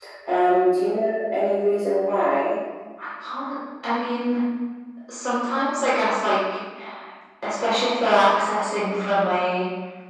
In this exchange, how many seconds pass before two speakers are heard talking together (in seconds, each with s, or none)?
none